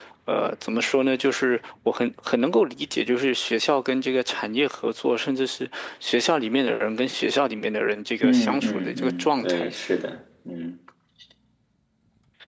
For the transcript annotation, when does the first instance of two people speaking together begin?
8 s

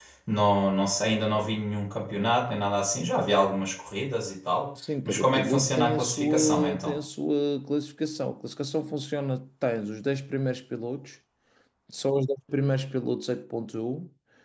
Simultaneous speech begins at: 5 s

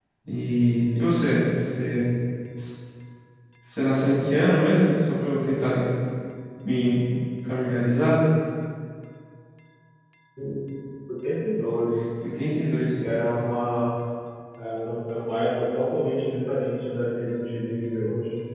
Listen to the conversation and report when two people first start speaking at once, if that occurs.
none

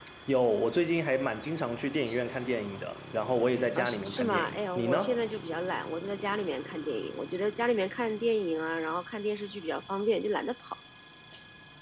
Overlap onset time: 4 s

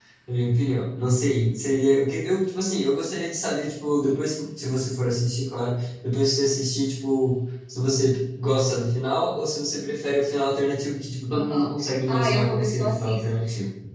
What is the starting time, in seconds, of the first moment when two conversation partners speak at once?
11 s

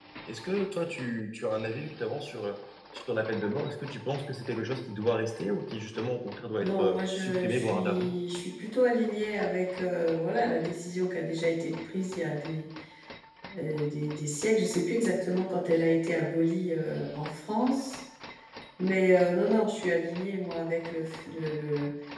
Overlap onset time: 7 s

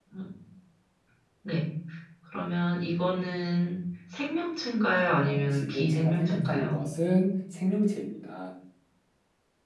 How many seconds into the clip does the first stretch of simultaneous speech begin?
5 s

